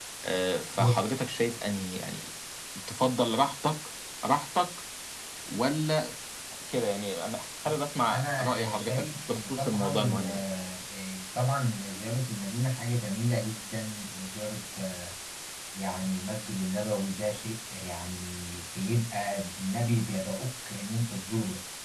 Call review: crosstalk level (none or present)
present